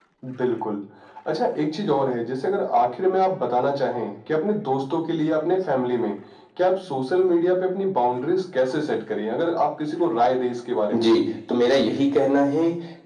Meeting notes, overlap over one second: none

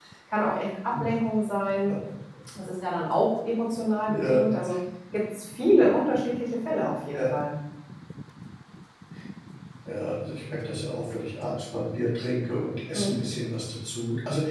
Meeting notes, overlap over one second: none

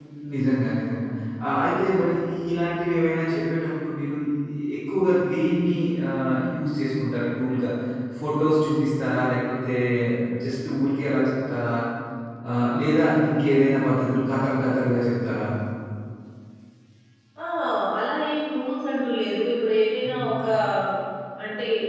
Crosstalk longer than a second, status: none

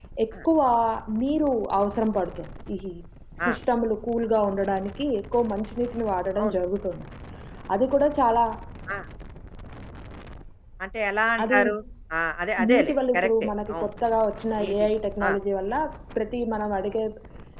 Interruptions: present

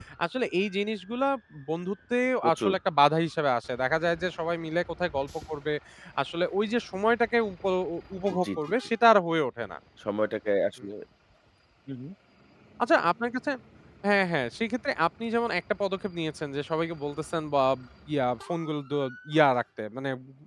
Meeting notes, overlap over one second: none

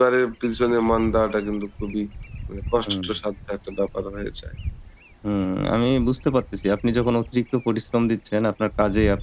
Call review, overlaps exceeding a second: none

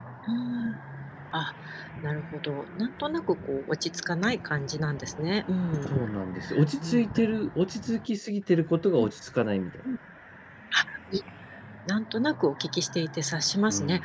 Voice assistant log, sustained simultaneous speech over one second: none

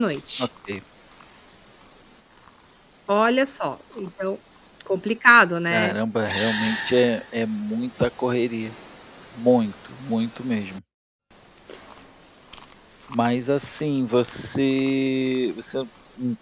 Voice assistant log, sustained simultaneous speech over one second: none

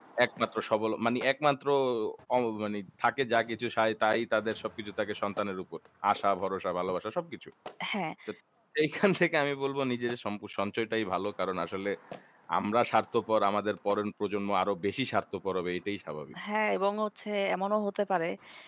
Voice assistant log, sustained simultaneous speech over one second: none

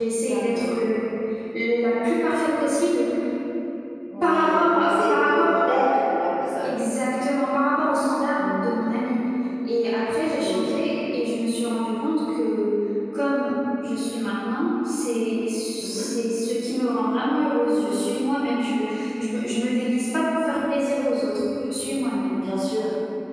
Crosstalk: present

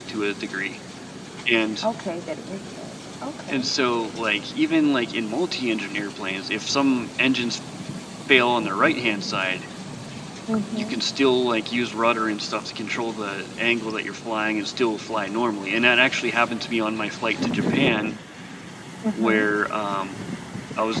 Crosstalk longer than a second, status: none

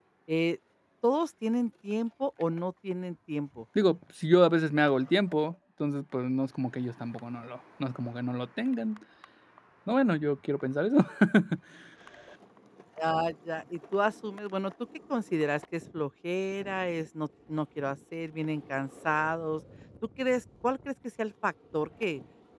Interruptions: none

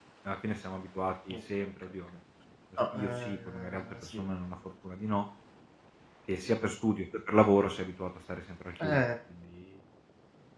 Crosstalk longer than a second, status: present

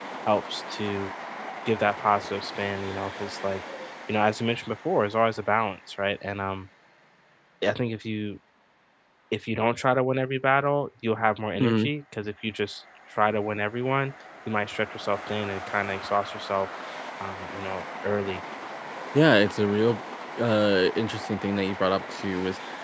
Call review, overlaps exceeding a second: none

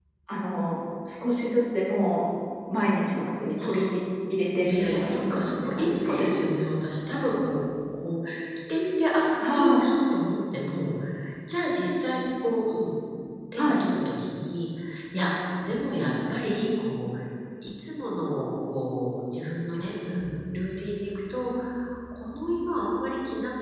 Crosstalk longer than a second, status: present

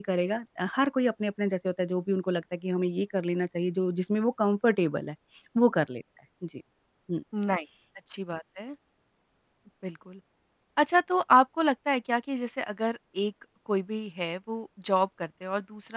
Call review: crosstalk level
none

